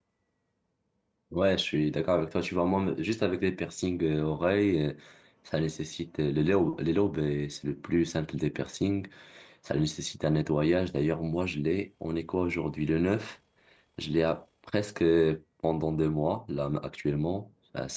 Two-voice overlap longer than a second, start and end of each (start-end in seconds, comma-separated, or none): none